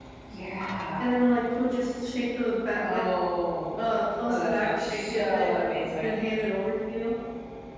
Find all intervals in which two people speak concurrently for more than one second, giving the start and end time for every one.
4.3-5.5

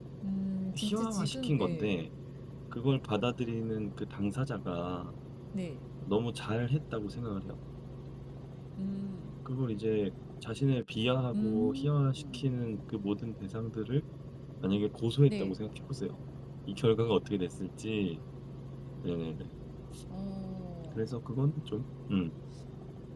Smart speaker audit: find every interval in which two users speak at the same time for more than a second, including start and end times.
0.7-2.1, 11.3-12.5

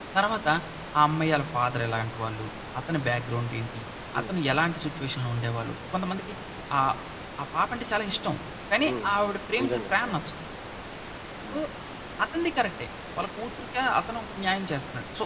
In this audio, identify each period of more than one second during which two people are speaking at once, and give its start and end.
8.8-10.2

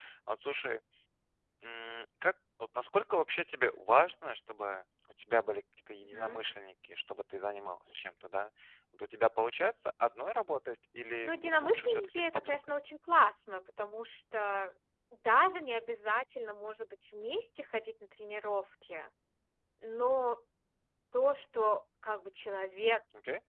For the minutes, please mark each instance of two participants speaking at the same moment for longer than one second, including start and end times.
11.2-12.6

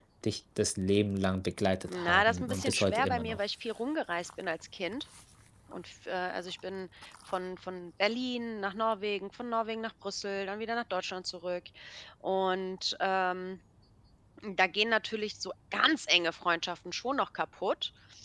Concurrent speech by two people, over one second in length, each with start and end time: 1.9-3.4

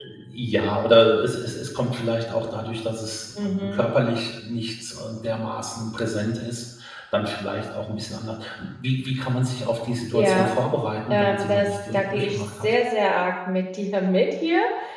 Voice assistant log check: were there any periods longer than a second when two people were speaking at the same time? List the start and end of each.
11.1-12.7

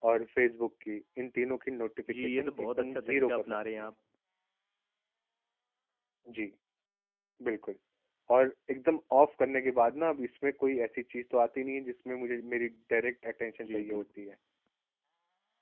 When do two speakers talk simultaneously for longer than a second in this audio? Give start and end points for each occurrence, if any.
2.1-3.9

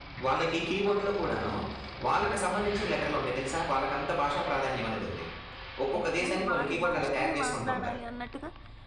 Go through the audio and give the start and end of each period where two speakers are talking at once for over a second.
6.0-8.0

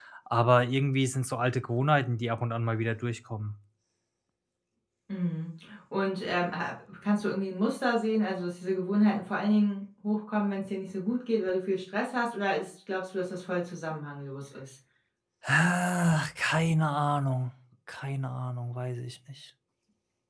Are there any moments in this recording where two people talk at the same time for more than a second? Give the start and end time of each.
none

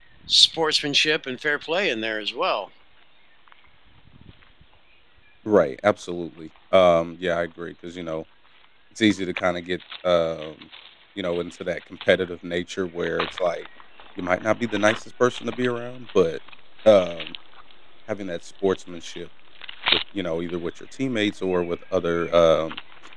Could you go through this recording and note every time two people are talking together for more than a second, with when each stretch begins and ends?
none

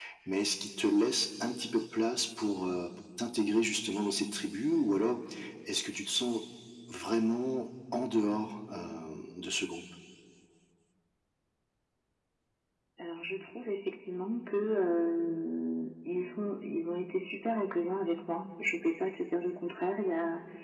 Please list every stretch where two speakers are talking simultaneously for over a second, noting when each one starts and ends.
none

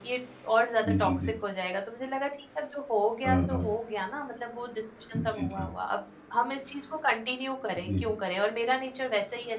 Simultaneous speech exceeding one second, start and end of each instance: none

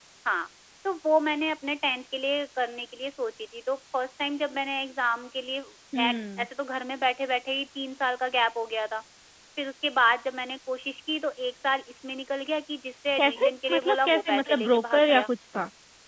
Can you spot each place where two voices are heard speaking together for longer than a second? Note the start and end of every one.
13.2-15.3

